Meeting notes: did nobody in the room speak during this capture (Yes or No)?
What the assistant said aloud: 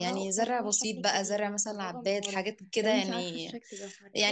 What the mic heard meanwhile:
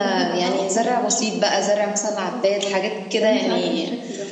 Yes